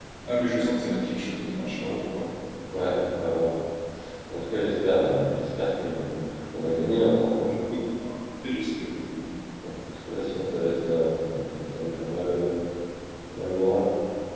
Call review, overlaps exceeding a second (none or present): none